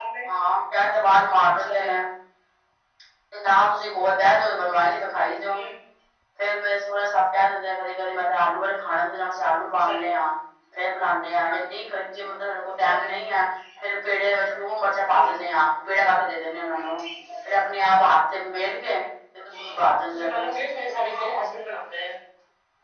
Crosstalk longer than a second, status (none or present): none